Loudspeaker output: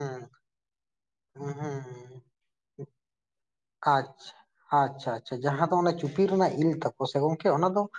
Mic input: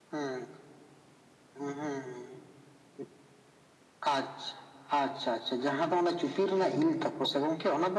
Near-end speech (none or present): present